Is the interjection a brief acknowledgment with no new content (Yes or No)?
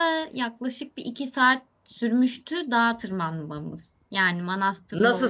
No